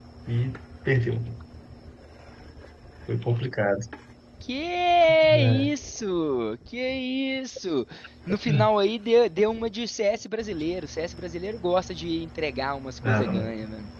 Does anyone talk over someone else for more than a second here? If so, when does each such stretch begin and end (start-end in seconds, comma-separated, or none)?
none